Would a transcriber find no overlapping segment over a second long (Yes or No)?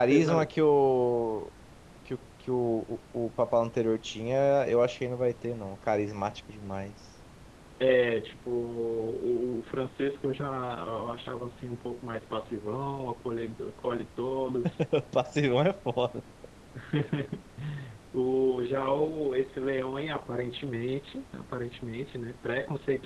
Yes